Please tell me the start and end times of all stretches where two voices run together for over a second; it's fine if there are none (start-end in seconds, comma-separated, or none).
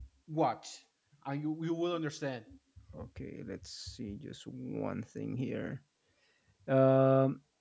none